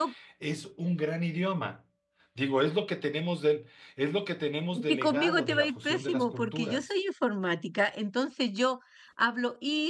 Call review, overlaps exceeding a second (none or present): present